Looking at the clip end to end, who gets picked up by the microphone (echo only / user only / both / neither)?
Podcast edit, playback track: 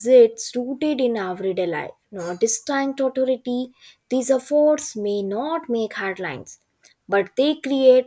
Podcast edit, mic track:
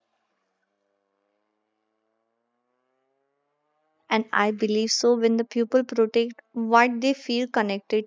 user only